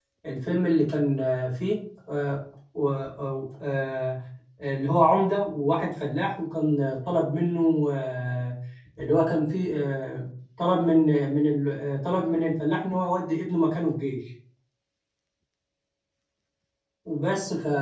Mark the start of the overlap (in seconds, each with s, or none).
none